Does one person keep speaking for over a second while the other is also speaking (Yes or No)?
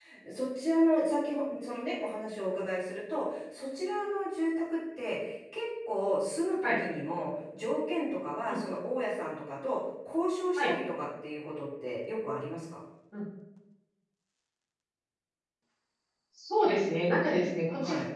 No